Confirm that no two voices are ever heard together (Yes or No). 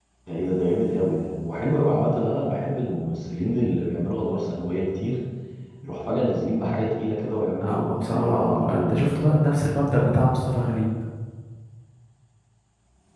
No